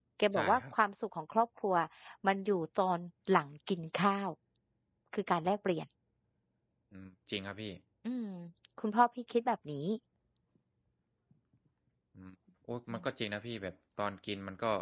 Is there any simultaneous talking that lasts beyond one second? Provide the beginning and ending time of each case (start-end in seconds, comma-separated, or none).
none